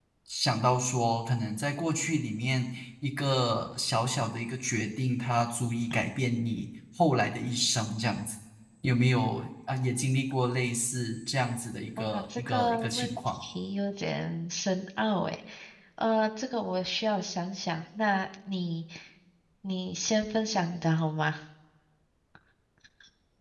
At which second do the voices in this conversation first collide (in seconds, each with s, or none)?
12.0 s